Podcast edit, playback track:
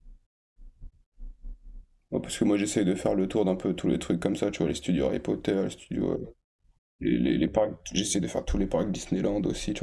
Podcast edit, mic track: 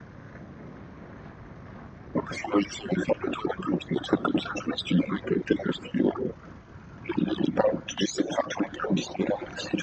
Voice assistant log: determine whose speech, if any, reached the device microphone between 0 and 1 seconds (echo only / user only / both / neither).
neither